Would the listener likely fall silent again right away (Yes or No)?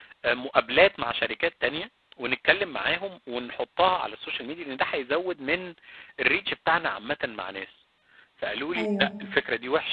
Yes